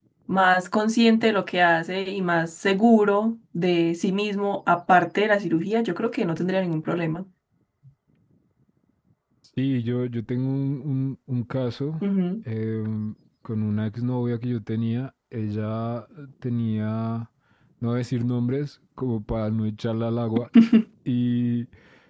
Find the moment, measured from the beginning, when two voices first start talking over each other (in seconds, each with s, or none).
none